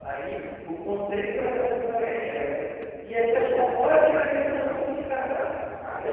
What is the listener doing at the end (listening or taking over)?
taking over